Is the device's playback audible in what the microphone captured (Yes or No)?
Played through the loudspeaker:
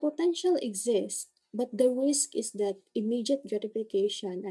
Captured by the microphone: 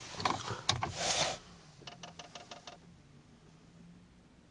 No